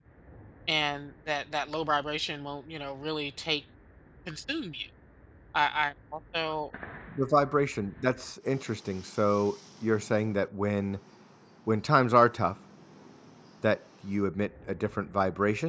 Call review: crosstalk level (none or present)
none